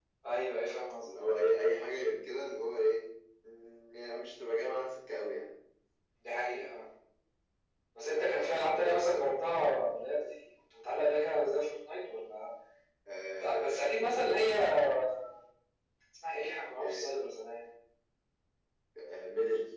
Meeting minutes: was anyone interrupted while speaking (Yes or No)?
Yes